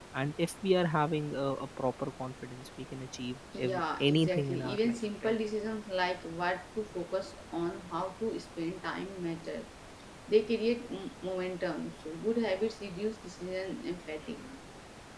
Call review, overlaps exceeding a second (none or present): present